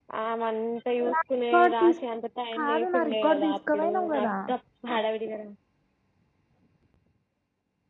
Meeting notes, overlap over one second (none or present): present